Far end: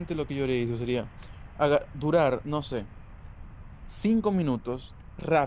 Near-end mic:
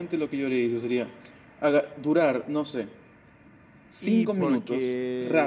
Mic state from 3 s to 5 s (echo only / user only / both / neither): both